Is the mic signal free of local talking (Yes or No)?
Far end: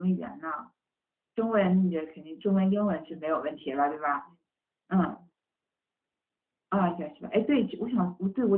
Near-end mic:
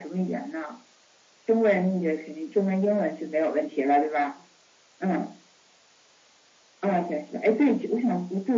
Yes